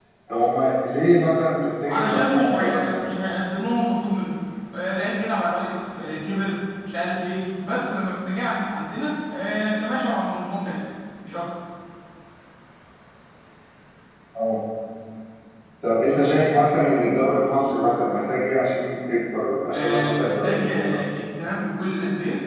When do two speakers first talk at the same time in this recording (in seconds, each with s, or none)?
1.9 s